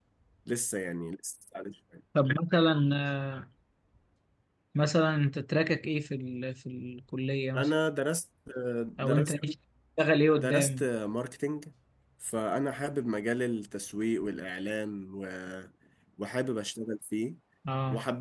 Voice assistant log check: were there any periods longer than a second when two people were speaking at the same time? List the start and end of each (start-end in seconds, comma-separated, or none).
none